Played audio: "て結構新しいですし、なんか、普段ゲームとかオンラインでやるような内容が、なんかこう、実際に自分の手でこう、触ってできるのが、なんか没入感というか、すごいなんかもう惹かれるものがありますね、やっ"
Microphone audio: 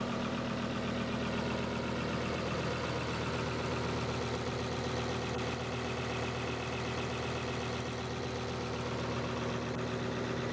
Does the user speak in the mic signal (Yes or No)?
No